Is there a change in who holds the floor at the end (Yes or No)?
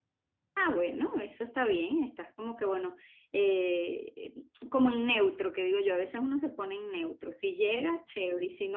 No